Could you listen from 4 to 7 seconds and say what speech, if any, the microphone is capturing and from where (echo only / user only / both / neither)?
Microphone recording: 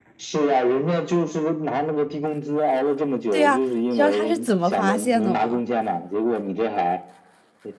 both